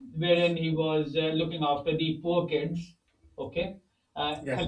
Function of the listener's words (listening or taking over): listening